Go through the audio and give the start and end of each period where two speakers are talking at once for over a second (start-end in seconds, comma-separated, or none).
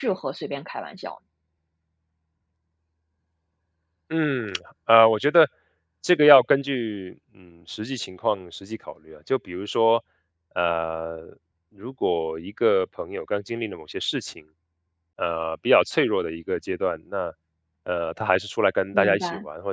none